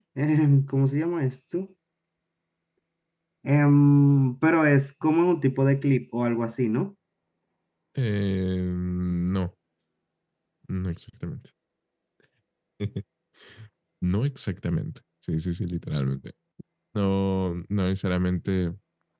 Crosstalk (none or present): none